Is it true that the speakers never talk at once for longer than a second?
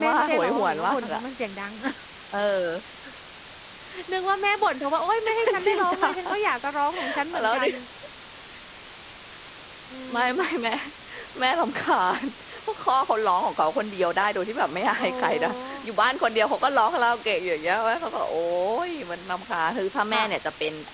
No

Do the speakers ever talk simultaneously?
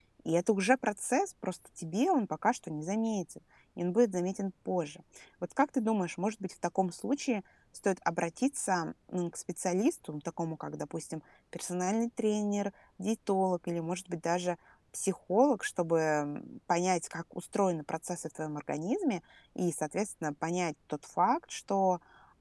No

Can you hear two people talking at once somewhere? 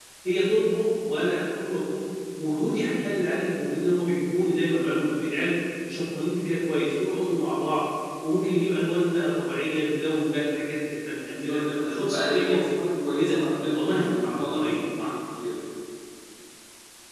Yes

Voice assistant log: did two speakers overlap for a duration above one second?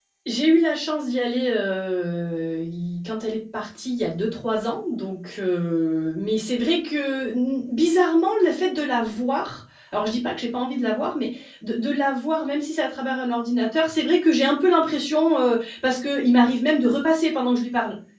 No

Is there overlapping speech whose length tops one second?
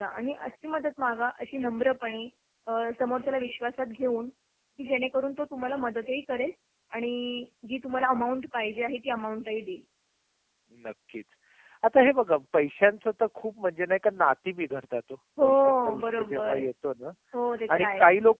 Yes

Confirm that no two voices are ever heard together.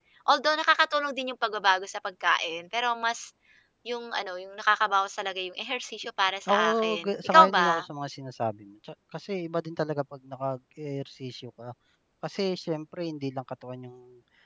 No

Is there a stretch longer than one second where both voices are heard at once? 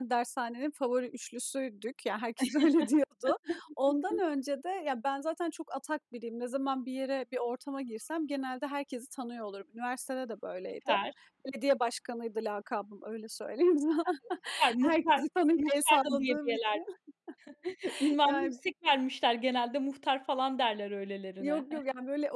Yes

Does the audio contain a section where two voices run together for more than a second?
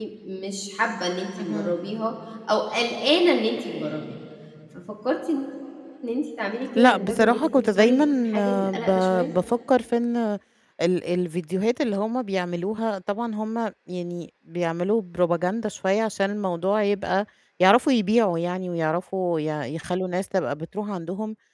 Yes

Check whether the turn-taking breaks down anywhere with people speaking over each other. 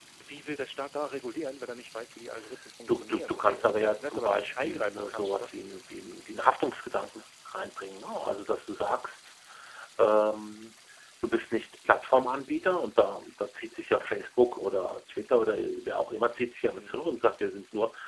Yes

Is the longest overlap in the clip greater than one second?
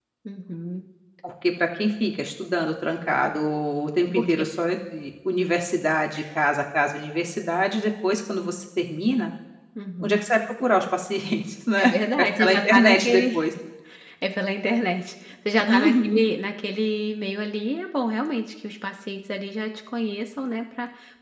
Yes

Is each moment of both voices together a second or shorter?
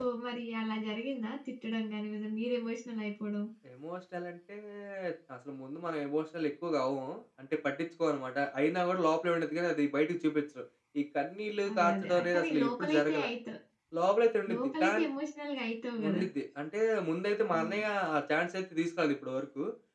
No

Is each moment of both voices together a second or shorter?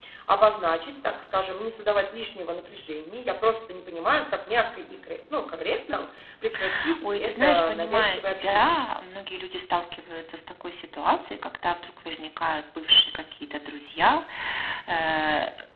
No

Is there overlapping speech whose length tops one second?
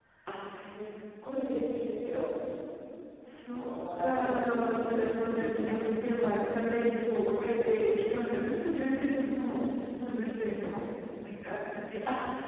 Yes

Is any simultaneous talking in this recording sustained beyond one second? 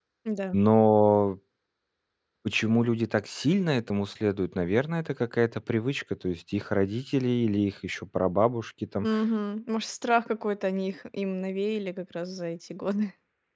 No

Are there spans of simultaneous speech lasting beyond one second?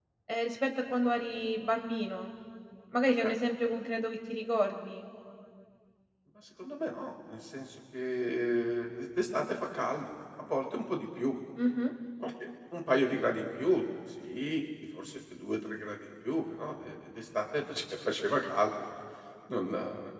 No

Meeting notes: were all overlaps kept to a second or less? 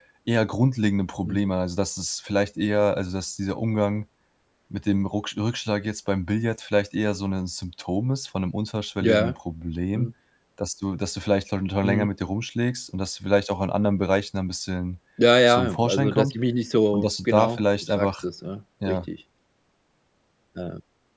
No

